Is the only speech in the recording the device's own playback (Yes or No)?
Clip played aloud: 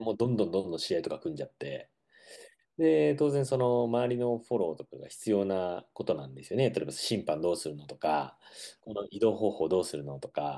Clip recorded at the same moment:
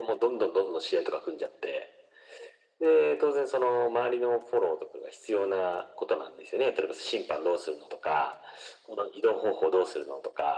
Yes